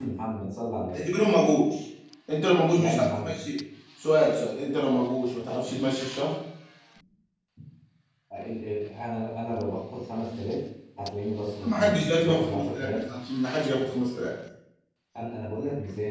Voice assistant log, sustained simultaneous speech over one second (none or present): present